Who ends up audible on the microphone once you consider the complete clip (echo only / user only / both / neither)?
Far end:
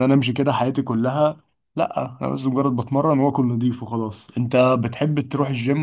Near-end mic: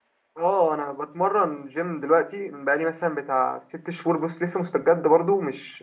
user only